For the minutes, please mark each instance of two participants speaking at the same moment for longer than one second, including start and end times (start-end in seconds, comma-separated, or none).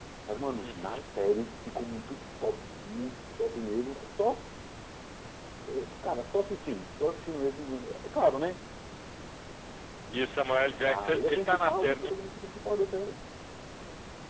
10.9-12.1